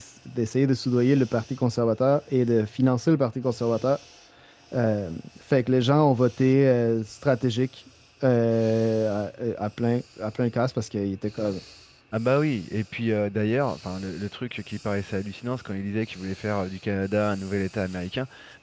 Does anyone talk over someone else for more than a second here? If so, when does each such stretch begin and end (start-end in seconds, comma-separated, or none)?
none